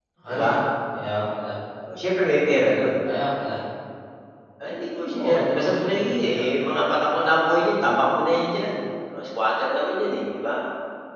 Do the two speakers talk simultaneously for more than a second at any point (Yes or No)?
Yes